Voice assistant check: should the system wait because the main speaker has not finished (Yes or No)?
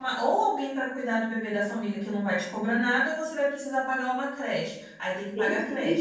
No